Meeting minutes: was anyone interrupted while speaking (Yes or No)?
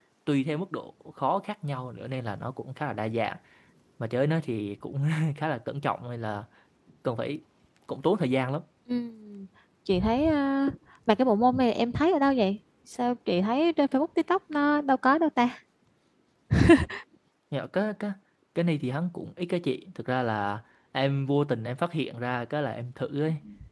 No